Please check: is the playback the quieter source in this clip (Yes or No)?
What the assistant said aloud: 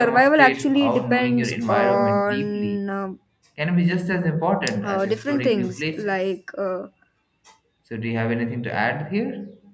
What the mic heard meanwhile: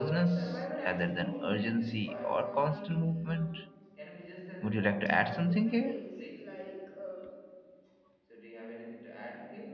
Yes